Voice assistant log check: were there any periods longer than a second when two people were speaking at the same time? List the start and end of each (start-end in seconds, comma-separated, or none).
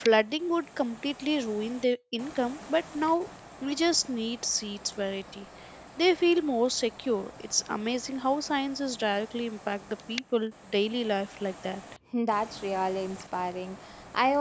none